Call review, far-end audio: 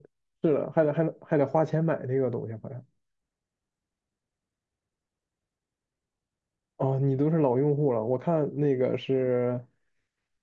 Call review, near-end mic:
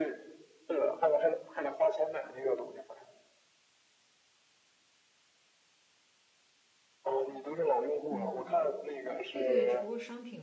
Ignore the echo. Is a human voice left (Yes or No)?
Yes